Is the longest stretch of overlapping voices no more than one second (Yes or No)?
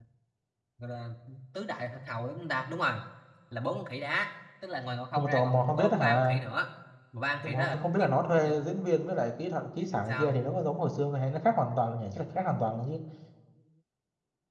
No